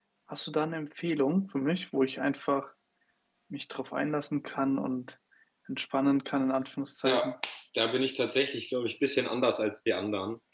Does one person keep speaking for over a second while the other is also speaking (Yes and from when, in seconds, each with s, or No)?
No